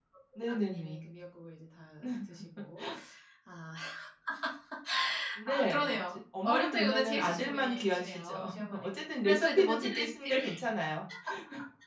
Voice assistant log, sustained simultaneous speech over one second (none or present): present